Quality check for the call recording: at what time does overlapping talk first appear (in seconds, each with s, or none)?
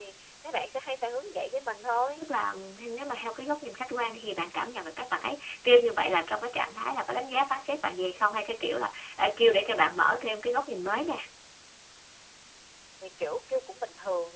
none